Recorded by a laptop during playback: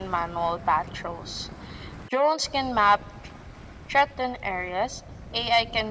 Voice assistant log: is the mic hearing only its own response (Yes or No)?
Yes